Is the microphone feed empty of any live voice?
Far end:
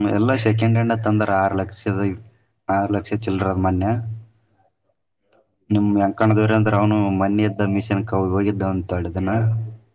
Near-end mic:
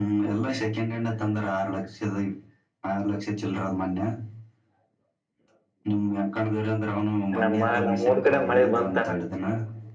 No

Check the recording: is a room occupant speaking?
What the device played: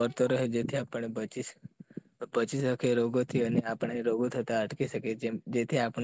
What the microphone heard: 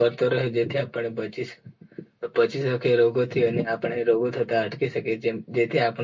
No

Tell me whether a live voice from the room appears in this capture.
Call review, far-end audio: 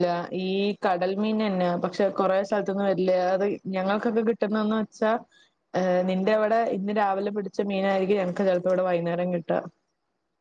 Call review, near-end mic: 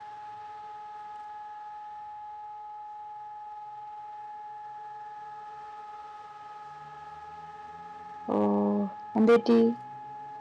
Yes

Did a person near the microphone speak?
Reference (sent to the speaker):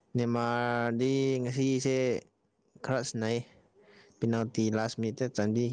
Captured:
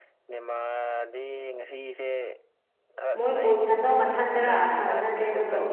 Yes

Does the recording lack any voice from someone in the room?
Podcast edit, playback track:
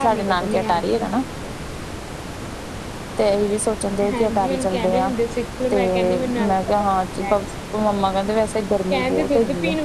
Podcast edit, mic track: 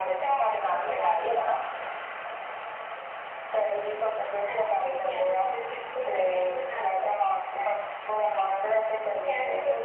Yes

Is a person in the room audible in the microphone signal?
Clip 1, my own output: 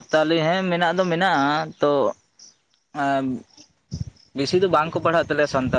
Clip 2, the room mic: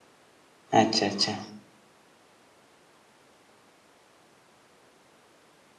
Yes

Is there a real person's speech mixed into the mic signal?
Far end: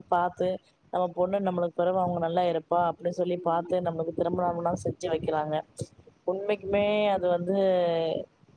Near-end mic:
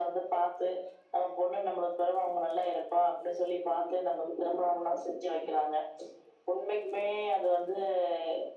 No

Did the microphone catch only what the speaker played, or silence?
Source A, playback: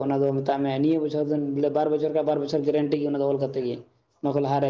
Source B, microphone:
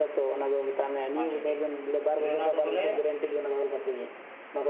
No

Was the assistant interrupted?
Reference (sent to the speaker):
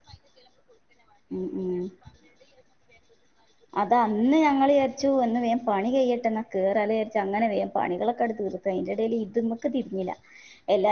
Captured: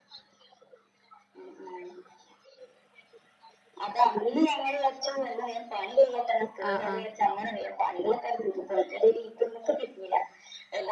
Yes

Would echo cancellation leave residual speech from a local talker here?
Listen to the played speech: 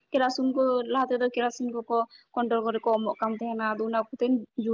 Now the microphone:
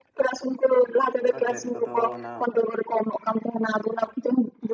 Yes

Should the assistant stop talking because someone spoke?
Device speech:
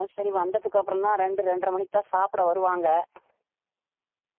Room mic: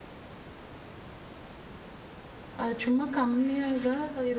Yes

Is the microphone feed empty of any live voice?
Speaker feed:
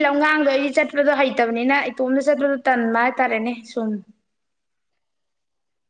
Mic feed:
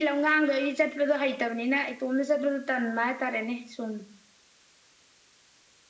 Yes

